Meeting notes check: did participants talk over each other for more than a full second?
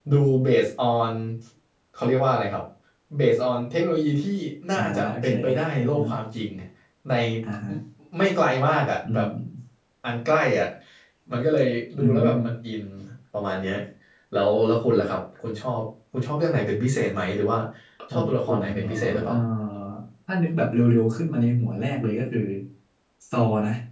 Yes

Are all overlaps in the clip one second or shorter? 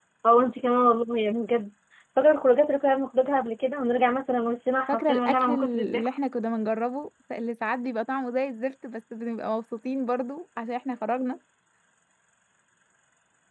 No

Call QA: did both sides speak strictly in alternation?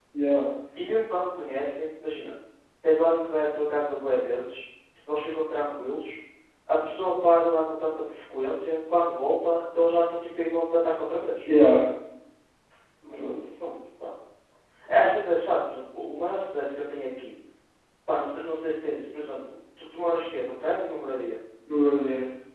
Yes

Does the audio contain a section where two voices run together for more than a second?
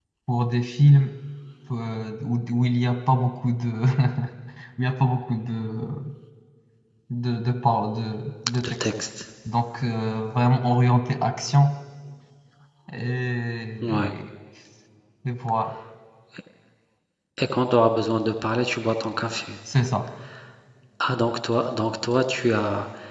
No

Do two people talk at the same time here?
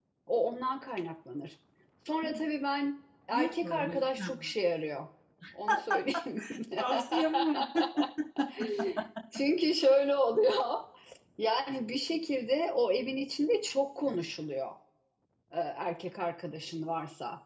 Yes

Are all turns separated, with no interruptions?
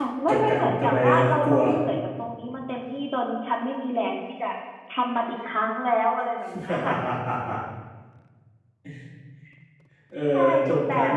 No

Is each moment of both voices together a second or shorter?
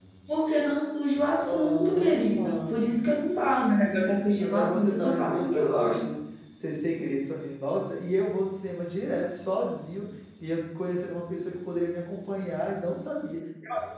No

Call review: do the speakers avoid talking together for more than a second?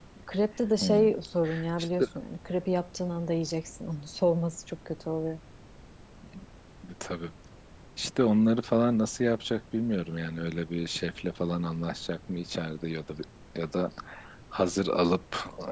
Yes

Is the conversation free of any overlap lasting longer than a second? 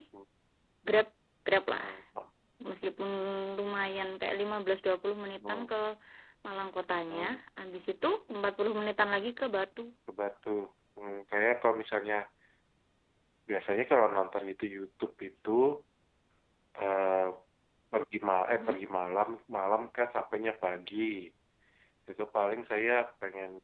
Yes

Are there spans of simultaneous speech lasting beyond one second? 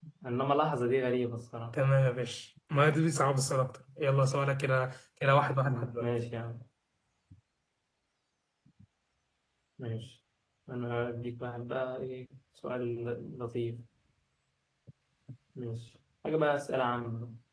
No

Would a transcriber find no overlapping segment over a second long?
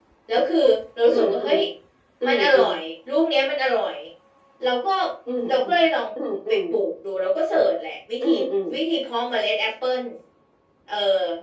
Yes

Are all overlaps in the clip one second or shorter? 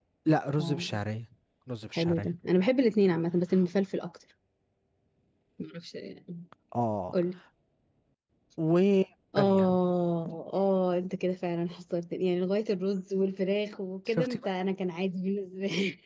Yes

